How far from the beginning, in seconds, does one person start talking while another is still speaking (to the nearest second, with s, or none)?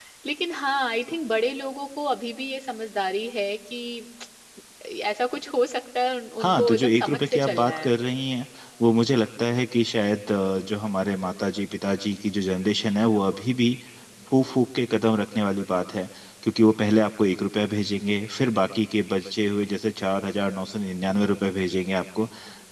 6 s